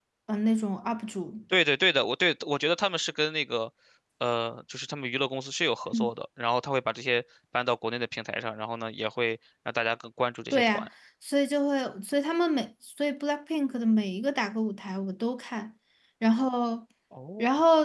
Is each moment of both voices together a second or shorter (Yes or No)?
Yes